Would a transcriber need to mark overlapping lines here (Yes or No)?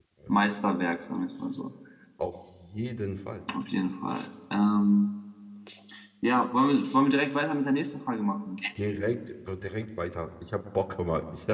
No